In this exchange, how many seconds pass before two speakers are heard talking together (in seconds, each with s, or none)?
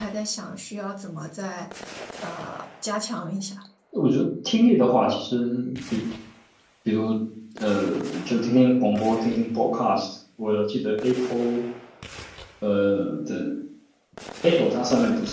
none